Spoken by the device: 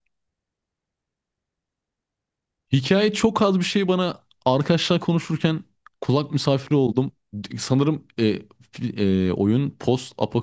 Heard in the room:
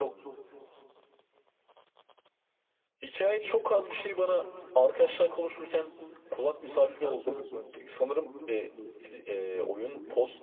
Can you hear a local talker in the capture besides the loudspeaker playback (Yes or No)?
Yes